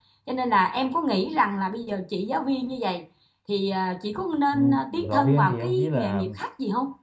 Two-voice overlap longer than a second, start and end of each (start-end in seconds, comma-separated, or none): 4.5-6.2